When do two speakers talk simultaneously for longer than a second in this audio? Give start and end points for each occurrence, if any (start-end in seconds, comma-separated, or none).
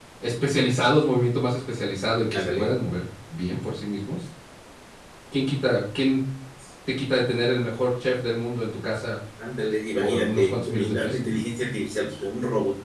10.0-11.4